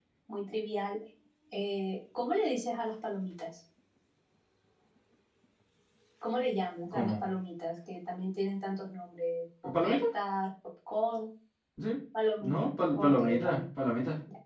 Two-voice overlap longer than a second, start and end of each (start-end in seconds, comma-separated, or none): 12.4-13.6